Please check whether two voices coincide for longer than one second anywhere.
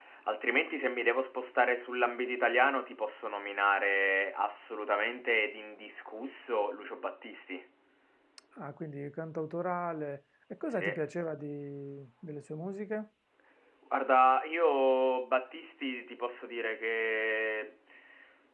No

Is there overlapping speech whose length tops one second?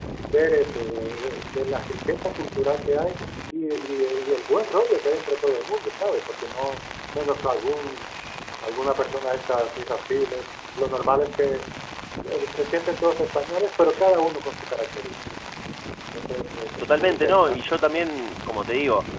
Yes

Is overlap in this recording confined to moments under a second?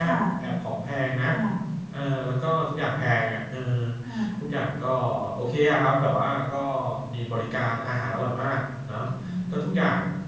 Yes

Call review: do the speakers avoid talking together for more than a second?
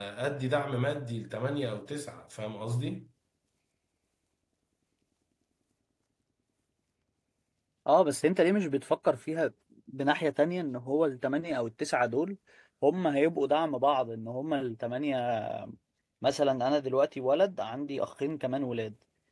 Yes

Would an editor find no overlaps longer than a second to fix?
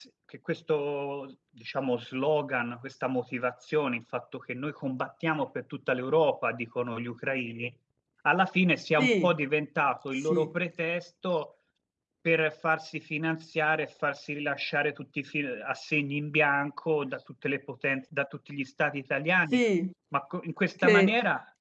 Yes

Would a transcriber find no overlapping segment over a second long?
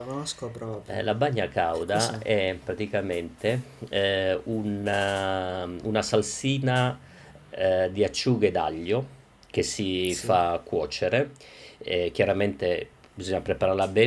Yes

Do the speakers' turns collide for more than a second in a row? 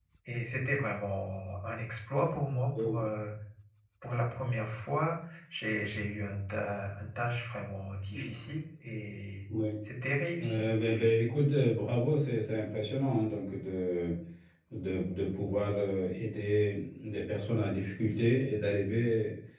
No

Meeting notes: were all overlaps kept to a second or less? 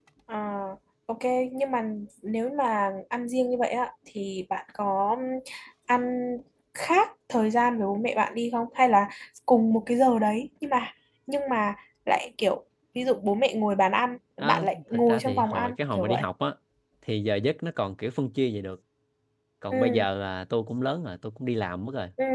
No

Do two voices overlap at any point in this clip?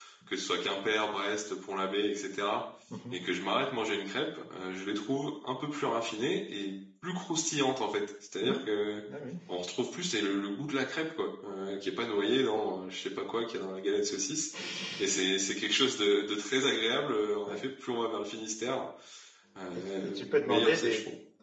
Yes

